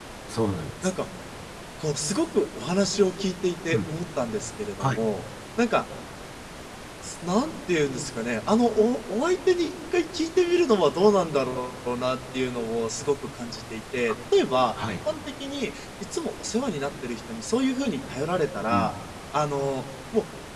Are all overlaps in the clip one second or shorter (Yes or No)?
Yes